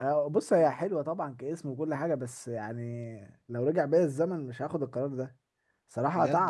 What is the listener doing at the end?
listening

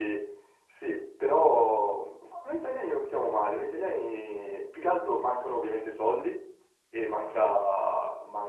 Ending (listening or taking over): listening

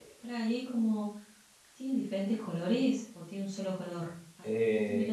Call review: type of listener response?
taking over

